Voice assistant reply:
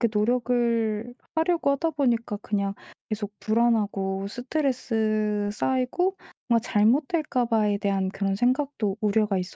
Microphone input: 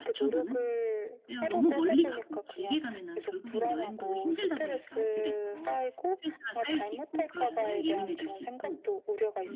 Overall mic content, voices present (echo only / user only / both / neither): both